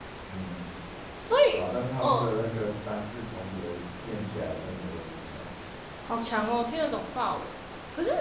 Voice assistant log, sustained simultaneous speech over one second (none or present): none